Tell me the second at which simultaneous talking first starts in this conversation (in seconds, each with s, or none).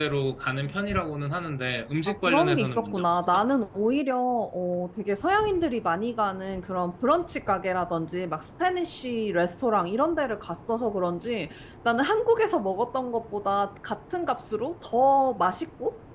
2.1 s